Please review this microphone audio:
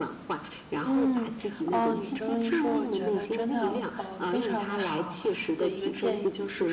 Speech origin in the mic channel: both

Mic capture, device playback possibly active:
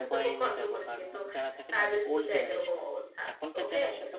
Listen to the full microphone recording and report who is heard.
both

